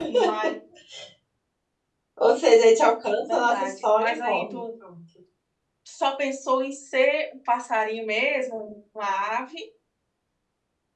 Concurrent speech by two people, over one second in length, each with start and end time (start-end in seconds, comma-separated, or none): 3.3-4.6